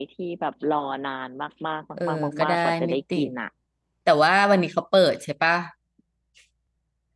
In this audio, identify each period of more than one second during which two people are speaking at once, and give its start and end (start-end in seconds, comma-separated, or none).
2.0-3.3